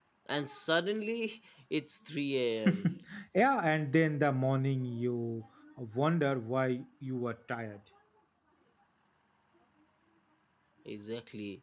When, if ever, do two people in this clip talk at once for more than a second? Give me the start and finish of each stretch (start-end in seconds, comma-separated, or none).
none